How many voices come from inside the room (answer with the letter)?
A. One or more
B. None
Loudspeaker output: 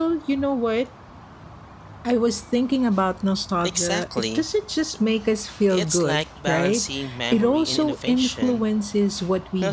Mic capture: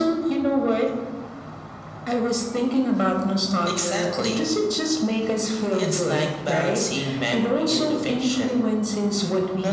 B